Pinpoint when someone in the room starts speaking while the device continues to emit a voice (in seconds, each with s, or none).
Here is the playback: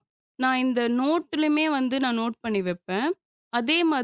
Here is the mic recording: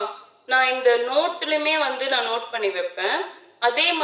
none